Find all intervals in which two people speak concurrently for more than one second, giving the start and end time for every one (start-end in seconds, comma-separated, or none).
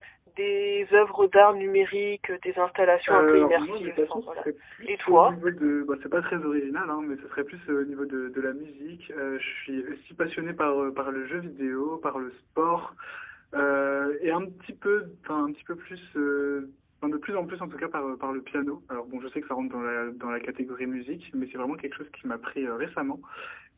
3.1-4.4